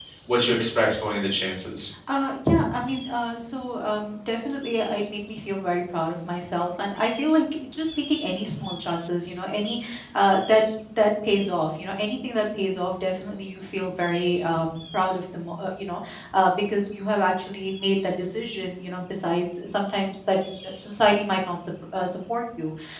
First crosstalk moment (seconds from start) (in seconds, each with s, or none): none